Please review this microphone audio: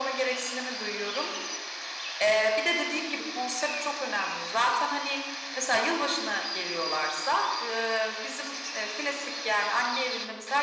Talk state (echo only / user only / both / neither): echo only